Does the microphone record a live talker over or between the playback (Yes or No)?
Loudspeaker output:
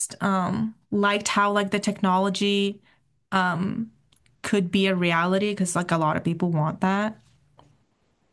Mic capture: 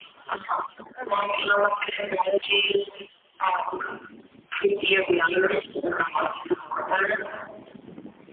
Yes